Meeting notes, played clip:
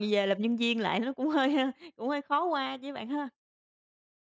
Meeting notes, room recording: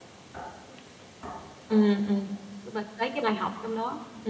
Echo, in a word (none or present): none